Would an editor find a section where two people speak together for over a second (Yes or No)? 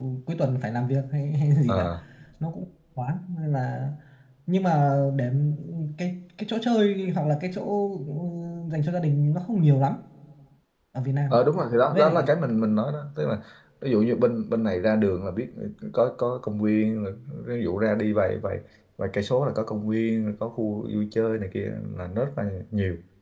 No